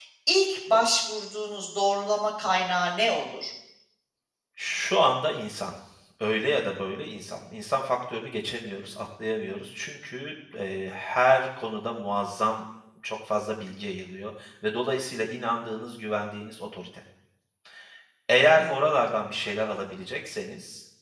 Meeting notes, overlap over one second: none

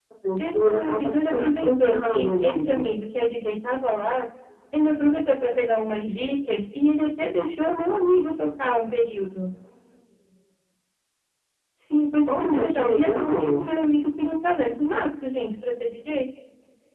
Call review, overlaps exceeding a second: present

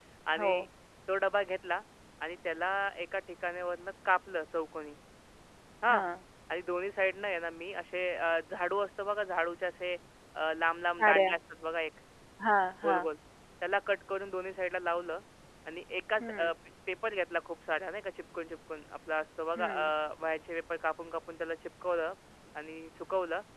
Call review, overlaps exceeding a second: none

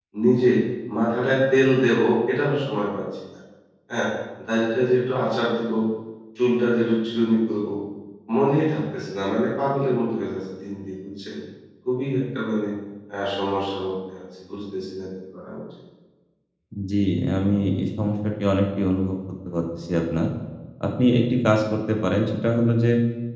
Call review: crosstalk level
none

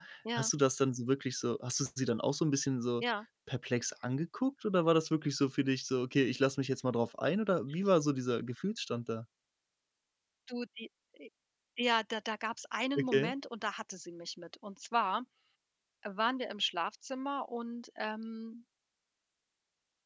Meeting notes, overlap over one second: none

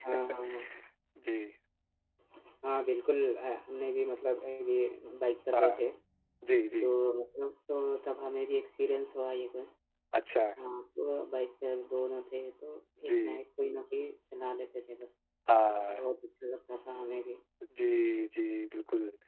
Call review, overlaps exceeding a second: none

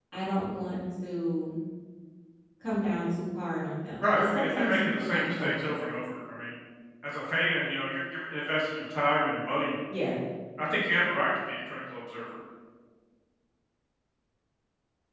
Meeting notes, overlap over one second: present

